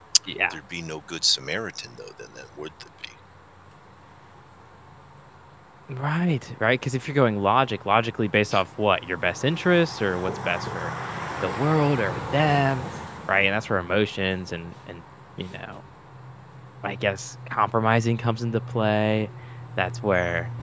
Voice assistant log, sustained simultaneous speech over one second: none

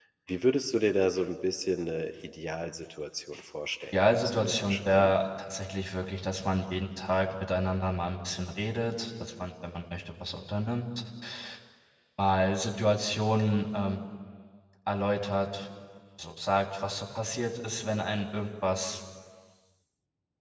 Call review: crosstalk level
present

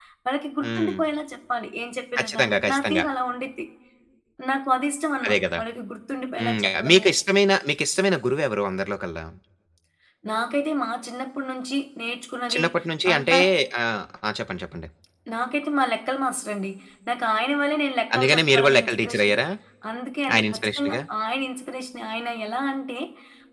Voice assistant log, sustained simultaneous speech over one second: present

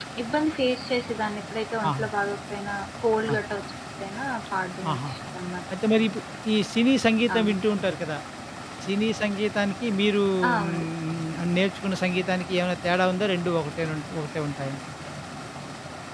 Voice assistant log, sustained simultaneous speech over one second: none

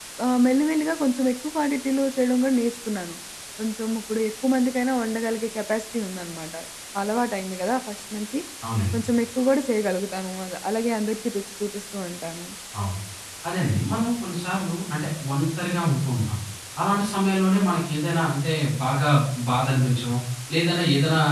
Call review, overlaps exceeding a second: none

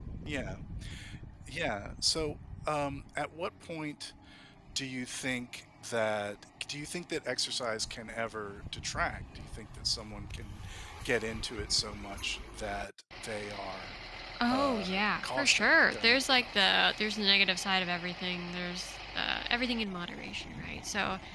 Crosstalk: present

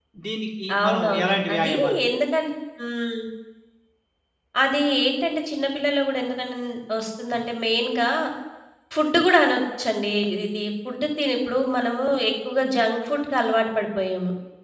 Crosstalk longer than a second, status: present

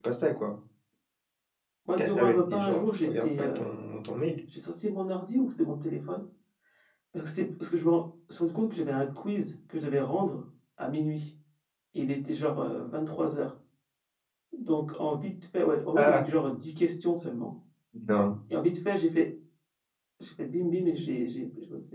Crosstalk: present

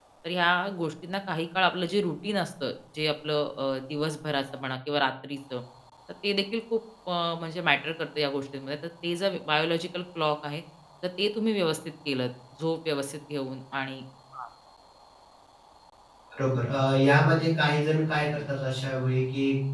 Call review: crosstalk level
none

